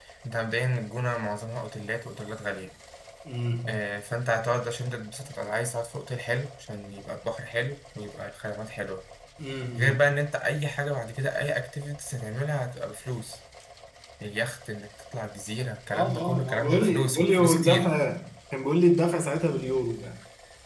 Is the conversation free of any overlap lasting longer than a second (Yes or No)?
No